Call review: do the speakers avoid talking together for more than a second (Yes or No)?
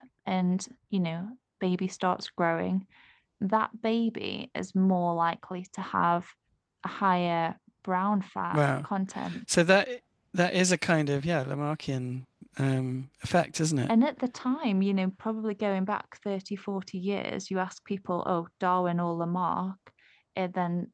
Yes